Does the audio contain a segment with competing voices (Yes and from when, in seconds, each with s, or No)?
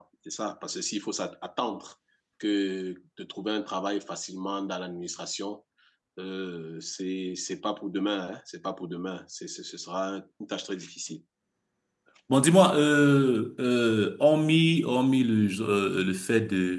No